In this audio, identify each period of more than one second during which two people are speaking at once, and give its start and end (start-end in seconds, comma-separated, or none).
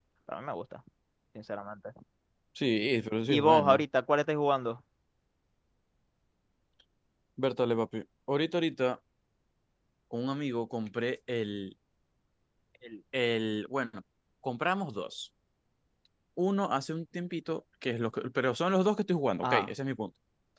none